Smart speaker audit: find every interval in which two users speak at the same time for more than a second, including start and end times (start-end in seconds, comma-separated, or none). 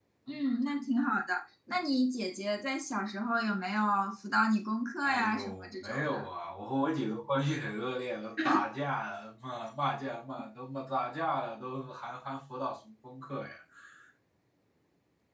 5.0-6.3